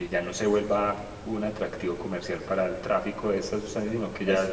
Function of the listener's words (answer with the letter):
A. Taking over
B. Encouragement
B